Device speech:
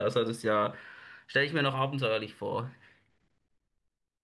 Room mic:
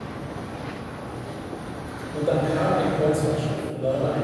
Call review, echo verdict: none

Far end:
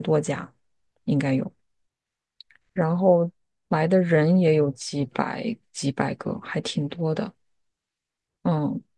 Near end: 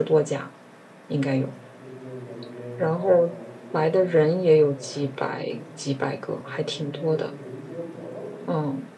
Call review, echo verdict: present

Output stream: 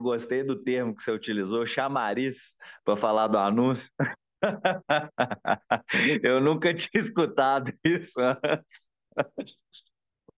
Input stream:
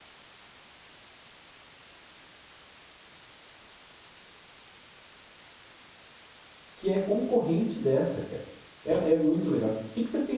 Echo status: none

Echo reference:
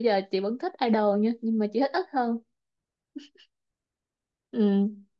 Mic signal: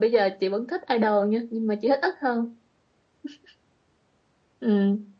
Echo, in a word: present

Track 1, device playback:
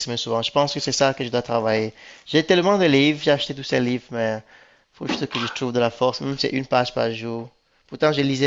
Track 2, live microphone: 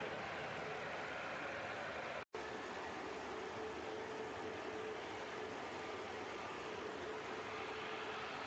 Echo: none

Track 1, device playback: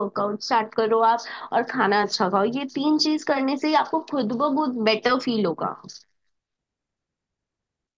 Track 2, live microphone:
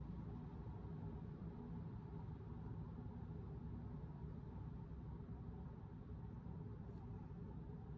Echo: none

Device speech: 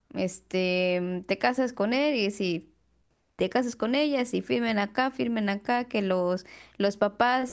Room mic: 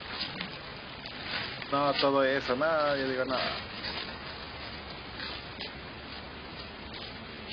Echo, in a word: none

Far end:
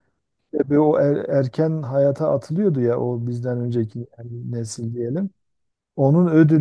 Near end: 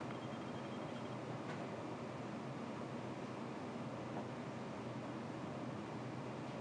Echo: none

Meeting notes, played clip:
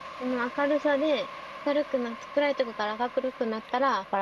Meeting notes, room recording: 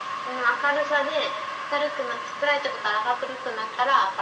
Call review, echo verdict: present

